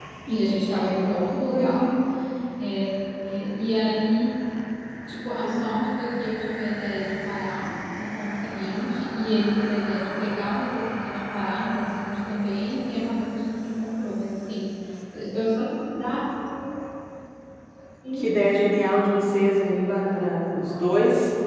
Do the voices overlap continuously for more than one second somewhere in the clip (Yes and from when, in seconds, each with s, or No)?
No